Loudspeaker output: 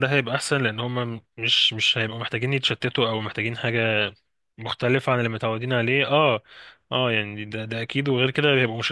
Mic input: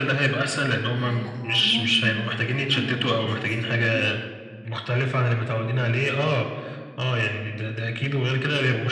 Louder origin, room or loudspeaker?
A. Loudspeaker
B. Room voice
A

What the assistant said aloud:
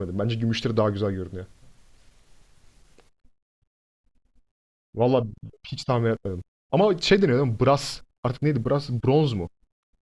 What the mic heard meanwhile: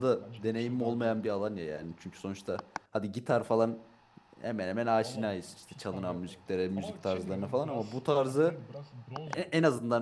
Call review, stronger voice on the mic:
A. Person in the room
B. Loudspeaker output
A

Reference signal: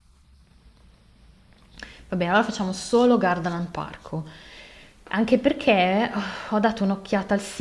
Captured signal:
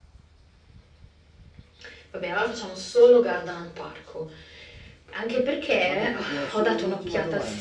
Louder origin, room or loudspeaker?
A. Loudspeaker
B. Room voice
A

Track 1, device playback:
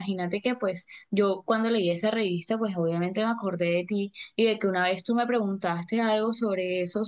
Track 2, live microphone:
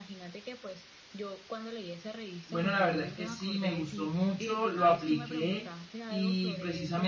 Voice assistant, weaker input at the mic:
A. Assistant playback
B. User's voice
A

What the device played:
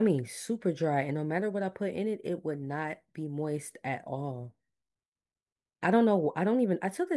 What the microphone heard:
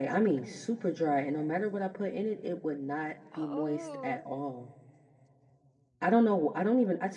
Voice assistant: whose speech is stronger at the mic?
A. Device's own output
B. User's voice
A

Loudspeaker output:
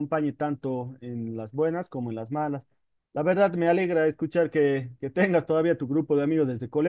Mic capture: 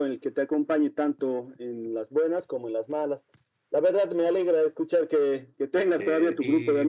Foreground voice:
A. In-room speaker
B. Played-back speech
B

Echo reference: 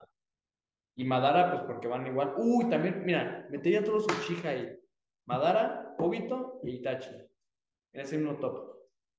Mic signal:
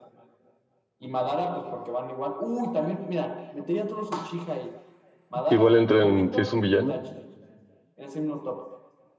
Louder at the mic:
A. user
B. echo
A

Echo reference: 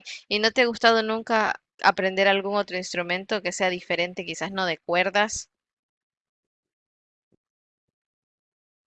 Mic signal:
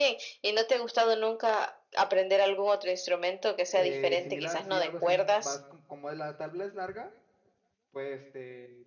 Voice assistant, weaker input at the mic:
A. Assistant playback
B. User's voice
B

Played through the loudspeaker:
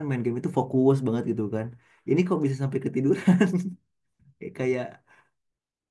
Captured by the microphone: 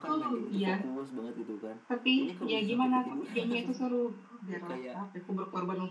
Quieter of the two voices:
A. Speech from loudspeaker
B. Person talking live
A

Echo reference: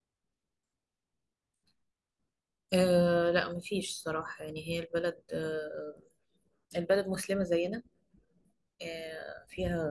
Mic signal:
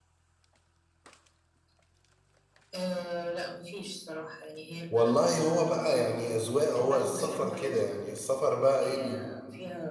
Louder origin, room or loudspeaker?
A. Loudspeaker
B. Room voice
B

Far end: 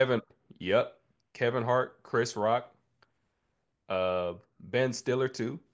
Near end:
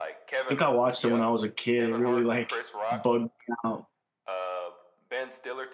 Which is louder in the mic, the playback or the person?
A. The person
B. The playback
A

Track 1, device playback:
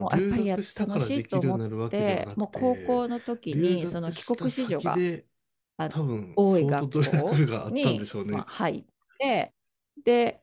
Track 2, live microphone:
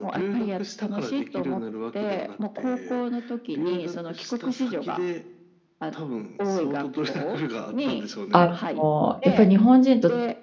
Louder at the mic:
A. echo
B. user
B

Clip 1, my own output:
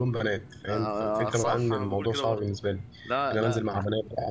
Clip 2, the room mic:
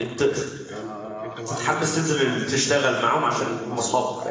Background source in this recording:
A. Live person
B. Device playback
B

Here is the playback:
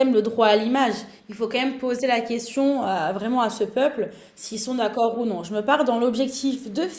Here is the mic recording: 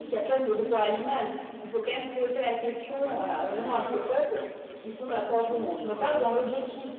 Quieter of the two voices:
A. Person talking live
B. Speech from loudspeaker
A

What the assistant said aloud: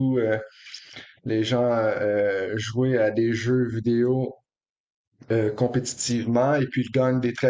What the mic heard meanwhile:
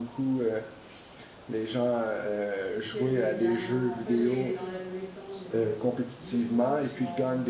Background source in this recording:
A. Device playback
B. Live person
B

